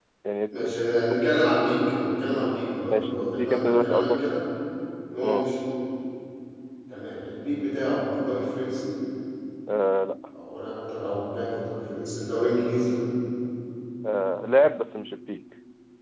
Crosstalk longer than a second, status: present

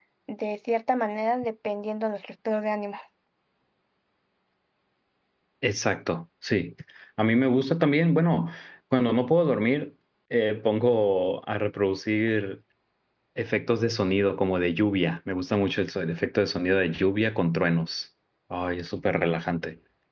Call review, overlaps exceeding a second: none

